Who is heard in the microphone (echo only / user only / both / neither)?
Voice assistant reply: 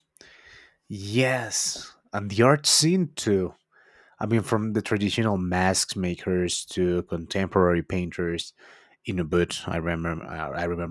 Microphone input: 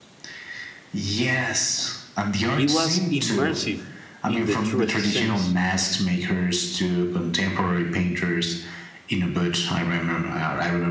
both